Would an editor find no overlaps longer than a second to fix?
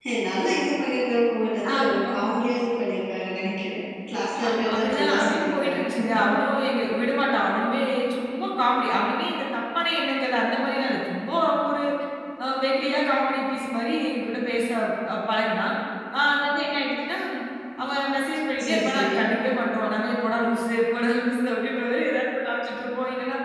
No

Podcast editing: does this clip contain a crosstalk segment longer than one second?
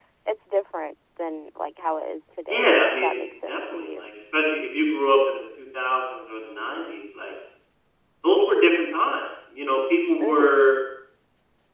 Yes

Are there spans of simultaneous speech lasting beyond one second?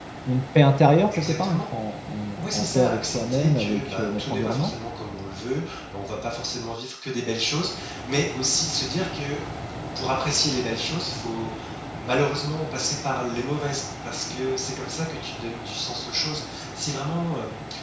Yes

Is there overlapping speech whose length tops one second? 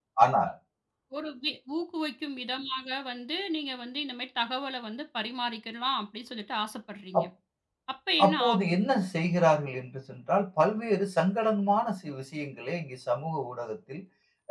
No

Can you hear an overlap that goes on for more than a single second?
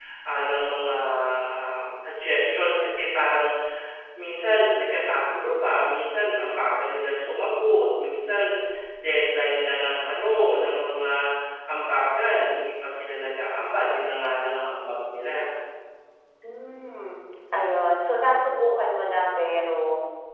No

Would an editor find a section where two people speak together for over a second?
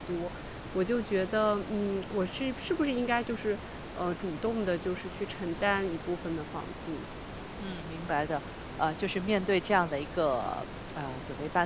No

